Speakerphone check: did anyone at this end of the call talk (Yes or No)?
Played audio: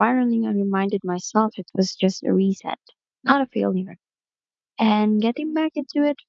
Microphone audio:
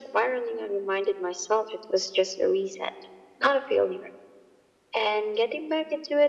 No